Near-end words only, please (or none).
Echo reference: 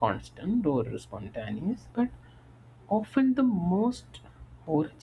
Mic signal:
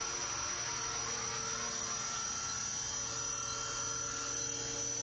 none